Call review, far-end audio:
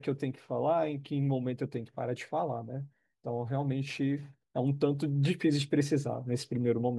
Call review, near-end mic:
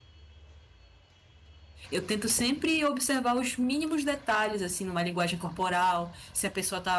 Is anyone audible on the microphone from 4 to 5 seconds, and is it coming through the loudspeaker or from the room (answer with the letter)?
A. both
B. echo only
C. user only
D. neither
C